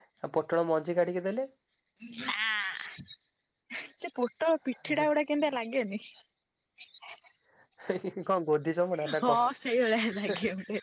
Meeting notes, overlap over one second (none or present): none